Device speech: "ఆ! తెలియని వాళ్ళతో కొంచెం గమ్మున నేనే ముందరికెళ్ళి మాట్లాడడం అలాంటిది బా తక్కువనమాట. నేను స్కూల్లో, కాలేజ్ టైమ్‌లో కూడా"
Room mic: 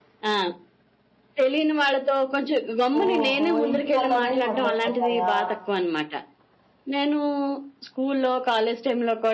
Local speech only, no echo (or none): ఓహో! ఇంటి పనులనేవి మొదలైపోతాయా?